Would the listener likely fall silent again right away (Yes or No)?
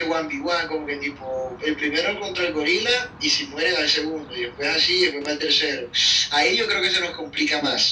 No